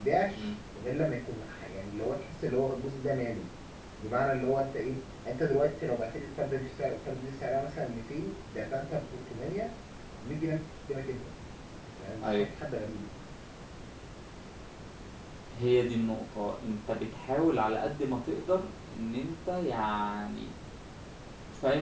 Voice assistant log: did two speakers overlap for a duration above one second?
No

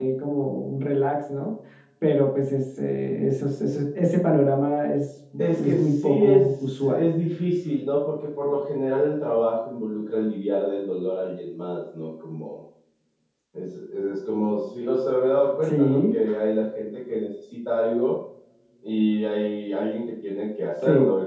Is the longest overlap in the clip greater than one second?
Yes, from 5.4 s

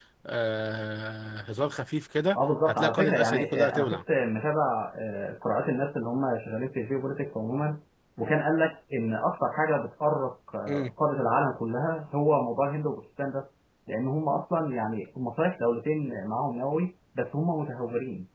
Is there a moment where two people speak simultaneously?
Yes, from 2.6 s

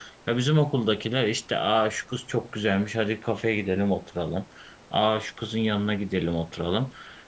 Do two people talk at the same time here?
No

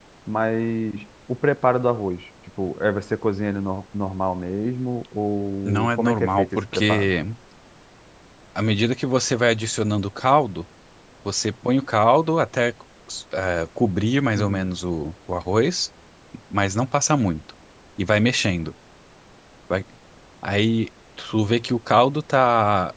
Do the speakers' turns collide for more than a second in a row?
Yes, from 5.7 s

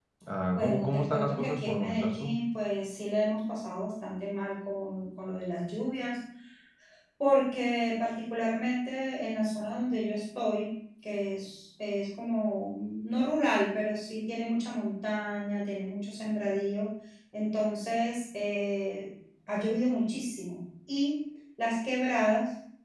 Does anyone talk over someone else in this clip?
Yes, from 0.6 s

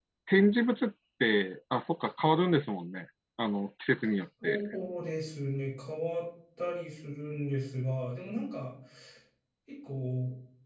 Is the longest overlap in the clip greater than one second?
No

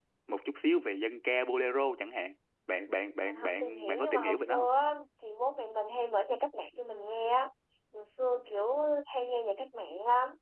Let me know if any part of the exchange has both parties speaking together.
Yes, from 3.2 s

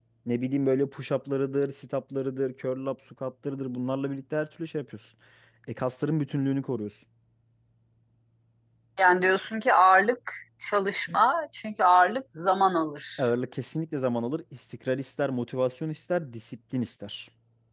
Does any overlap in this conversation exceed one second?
No

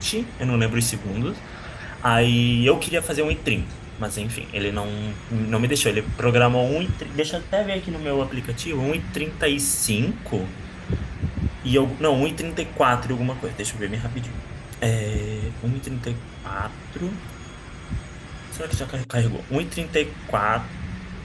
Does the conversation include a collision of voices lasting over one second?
No

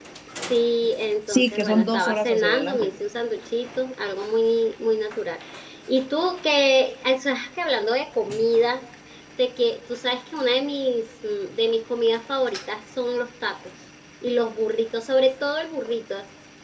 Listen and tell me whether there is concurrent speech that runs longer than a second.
Yes, from 1.3 s

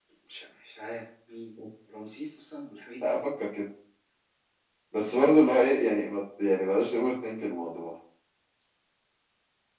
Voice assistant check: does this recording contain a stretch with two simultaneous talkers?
No

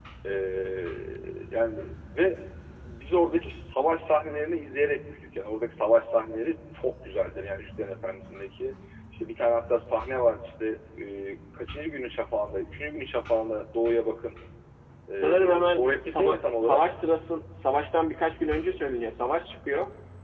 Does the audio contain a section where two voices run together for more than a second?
Yes, from 15.1 s

